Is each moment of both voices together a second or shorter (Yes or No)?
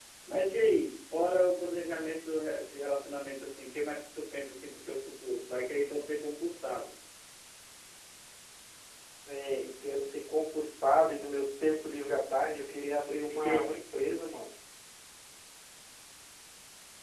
Yes